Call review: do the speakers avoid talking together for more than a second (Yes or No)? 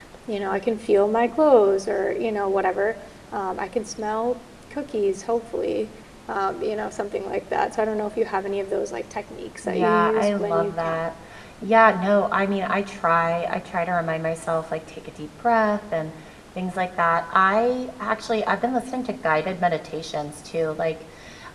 No